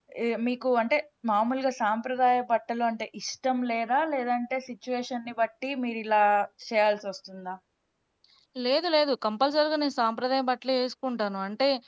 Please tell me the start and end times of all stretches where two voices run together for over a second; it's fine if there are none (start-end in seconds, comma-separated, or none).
none